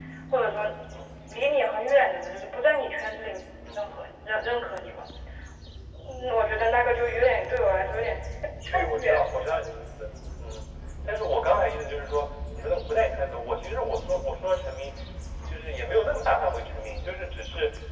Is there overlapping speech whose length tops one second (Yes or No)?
No